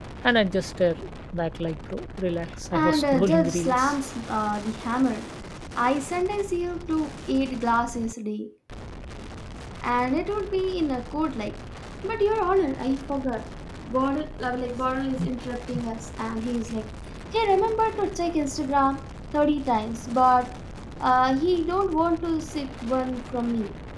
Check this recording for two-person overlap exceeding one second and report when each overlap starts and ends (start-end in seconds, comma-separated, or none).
2.7-4.0